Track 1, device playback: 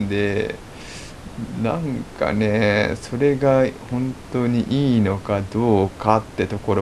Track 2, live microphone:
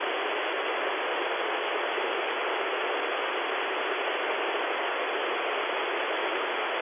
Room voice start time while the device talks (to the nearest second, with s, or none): none